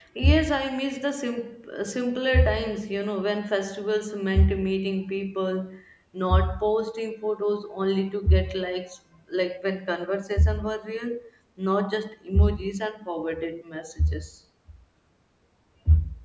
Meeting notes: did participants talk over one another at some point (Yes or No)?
No